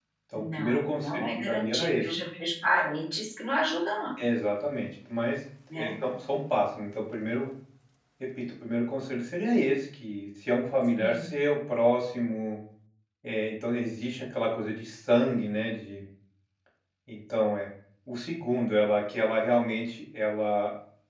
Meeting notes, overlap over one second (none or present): present